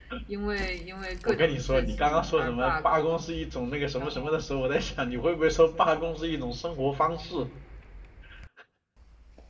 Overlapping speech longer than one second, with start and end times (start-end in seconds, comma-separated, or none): 1.3-3.0